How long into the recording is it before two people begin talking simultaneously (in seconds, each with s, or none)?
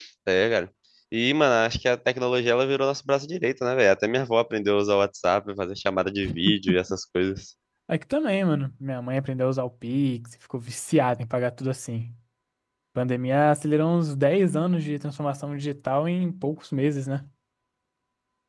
none